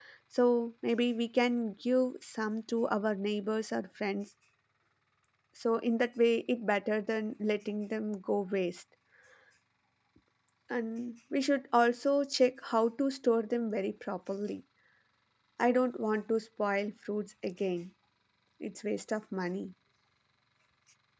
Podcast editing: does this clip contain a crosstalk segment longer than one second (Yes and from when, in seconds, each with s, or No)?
No